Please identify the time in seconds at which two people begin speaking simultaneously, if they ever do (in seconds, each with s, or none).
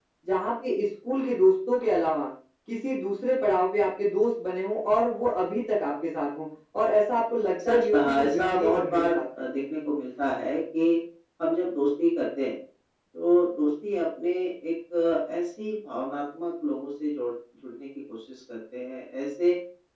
7.6 s